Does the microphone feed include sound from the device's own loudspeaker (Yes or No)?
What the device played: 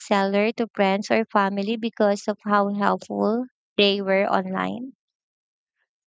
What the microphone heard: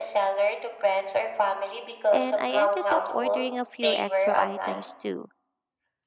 Yes